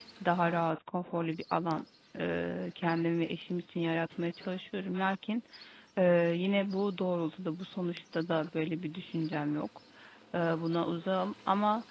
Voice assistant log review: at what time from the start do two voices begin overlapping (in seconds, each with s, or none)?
none